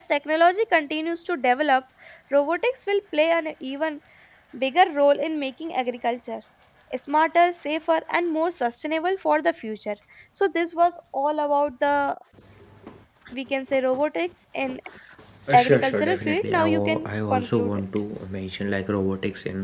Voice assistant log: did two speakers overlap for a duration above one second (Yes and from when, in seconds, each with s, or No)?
Yes, from 15.5 s